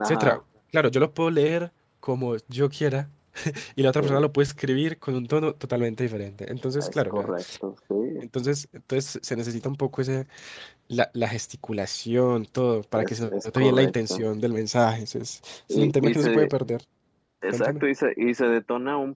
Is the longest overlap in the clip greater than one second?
Yes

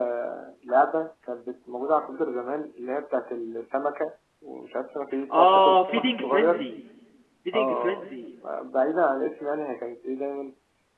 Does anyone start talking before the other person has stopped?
Yes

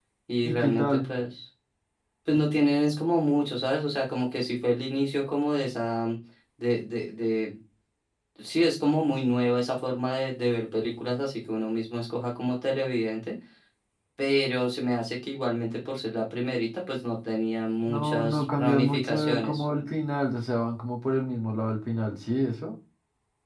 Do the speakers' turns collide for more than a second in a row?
Yes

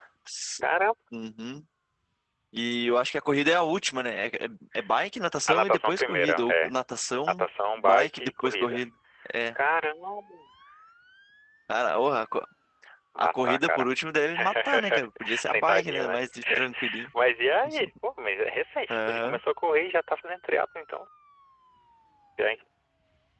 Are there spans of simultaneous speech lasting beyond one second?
Yes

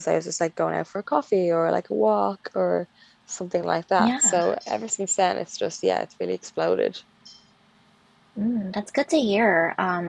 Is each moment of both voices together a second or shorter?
Yes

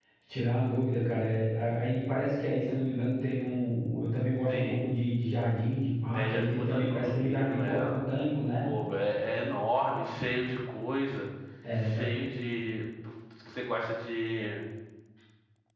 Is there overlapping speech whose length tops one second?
Yes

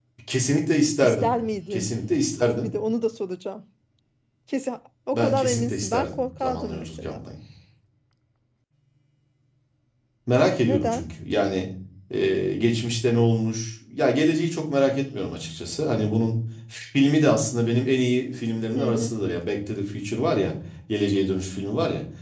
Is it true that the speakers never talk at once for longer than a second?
No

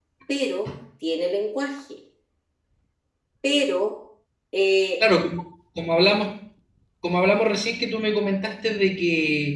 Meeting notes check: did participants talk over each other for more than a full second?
No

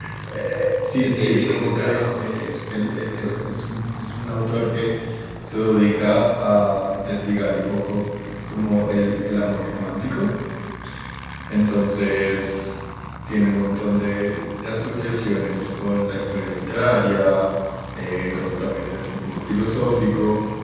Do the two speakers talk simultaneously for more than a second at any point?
Yes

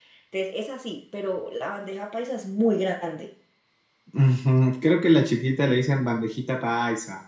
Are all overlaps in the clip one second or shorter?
Yes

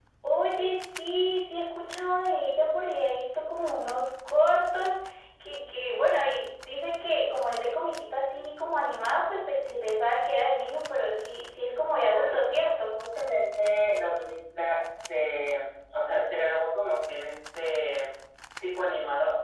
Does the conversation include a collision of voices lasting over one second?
No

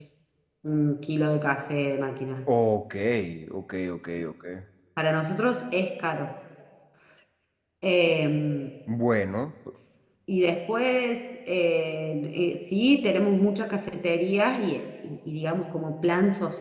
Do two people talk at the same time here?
No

